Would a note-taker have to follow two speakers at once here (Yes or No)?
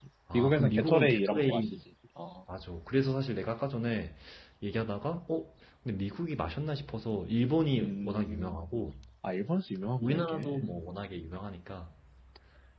Yes